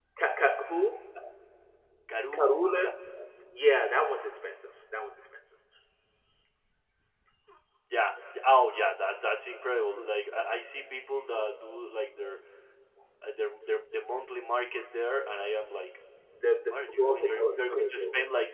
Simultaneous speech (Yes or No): Yes